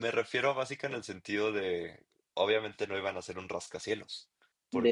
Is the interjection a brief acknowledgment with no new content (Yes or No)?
Yes